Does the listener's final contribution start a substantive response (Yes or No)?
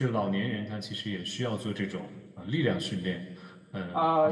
Yes